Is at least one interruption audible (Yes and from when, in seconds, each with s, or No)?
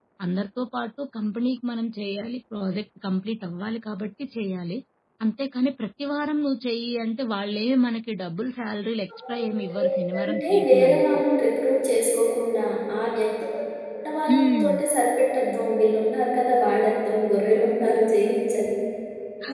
Yes, from 9.3 s